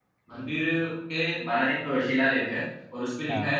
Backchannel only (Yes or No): Yes